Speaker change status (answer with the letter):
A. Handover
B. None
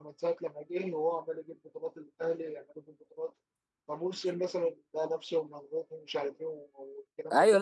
A